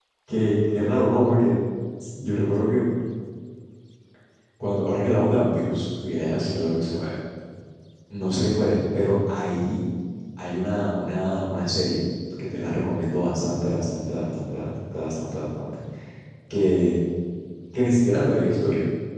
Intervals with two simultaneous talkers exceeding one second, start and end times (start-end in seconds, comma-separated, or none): none